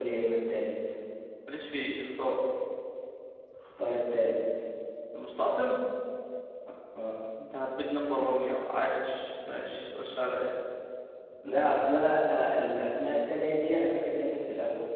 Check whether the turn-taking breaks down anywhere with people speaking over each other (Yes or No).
No